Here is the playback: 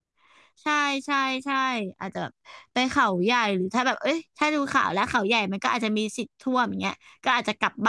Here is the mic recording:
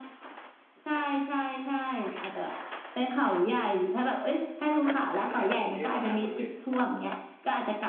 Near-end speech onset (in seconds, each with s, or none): 5.3 s